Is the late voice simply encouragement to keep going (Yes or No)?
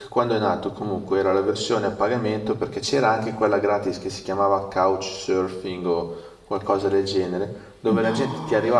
Yes